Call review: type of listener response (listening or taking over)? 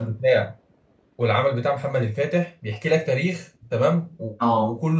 listening